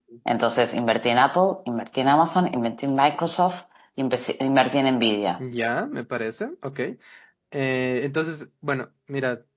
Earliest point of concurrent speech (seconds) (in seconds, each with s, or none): none